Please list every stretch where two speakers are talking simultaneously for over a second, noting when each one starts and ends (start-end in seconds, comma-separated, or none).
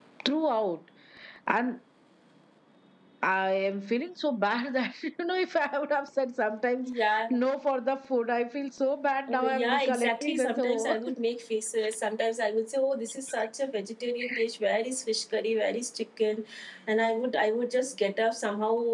9.3-11.0